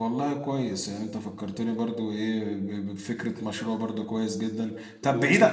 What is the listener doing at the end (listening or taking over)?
listening